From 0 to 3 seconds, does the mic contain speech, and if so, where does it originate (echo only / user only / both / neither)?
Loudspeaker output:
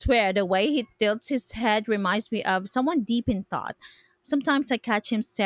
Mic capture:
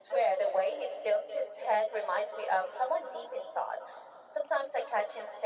echo only